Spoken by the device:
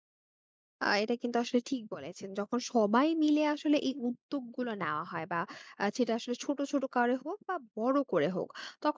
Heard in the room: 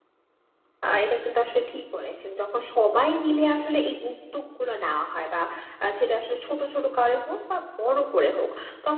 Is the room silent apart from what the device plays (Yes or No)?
Yes